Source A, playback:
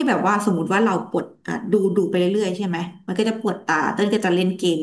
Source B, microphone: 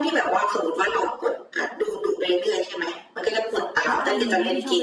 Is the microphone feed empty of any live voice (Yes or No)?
No